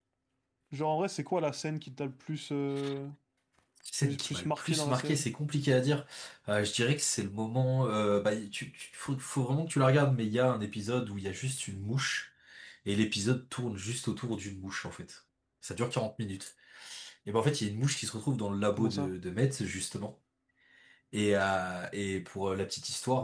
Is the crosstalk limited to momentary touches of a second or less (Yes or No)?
No